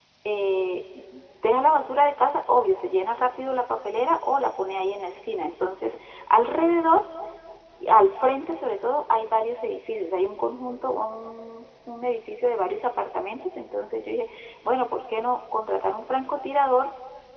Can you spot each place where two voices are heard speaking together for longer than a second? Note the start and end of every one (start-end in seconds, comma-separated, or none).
none